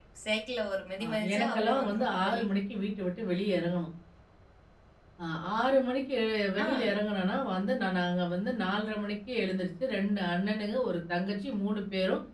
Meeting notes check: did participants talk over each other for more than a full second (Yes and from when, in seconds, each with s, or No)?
Yes, from 1.0 s